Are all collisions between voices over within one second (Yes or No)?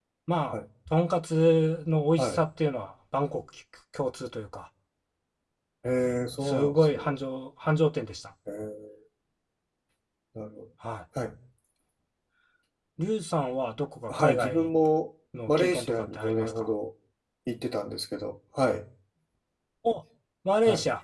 No